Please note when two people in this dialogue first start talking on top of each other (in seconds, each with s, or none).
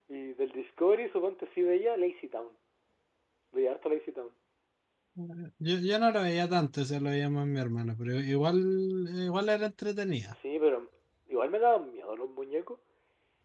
none